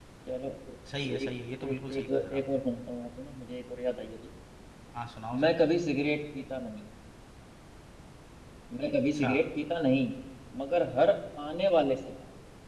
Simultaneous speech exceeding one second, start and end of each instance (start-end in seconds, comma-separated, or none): 1.2-2.6